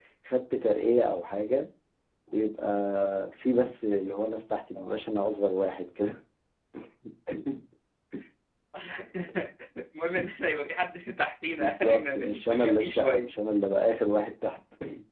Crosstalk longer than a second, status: present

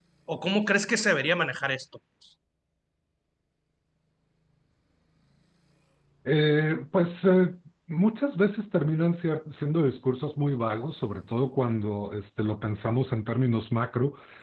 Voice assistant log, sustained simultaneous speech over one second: none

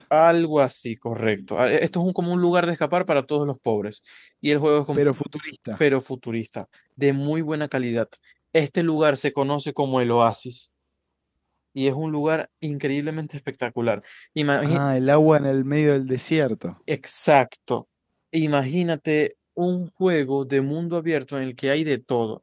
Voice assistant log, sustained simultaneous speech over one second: none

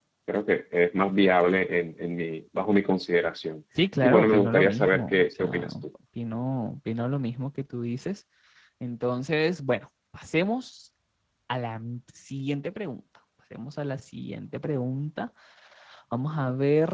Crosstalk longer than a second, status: present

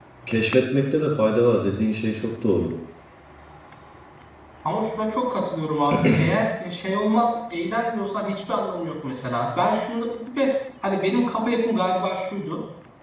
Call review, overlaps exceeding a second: none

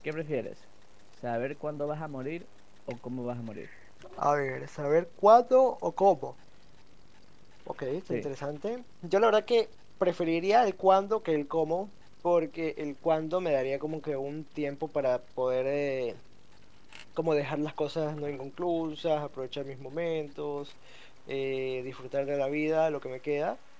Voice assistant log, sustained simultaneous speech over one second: none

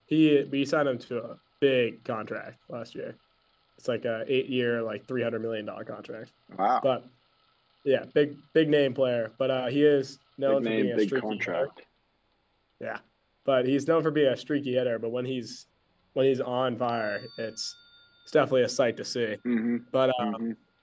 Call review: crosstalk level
present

